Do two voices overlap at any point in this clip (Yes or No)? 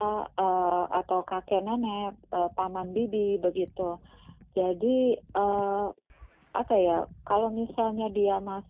No